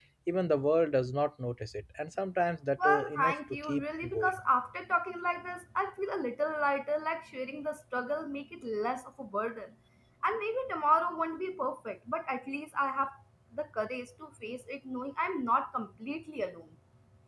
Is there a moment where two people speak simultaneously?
Yes, from 2.8 s

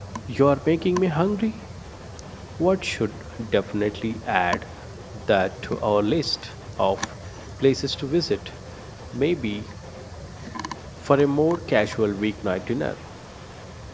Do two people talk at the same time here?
No

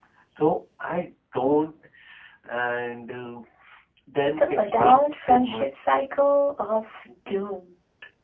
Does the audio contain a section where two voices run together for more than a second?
Yes, from 4.4 s

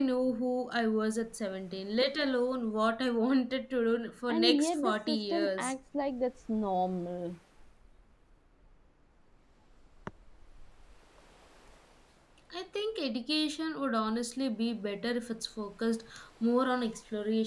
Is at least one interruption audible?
Yes, from 4.3 s

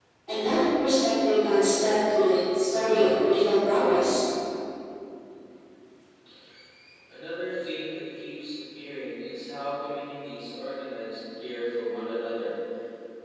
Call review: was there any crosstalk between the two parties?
No

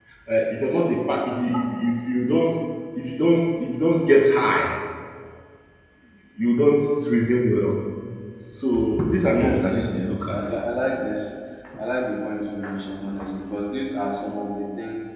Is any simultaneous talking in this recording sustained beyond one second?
Yes, from 9.2 s

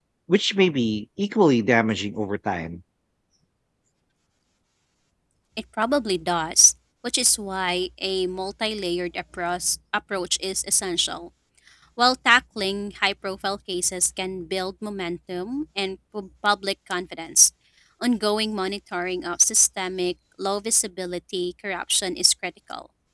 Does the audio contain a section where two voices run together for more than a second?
No

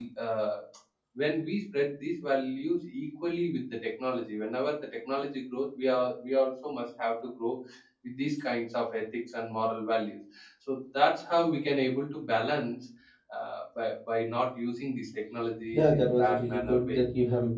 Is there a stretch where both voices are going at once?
Yes, from 15.7 s

